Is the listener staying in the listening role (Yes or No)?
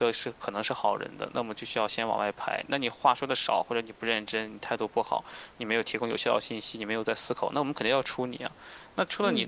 Yes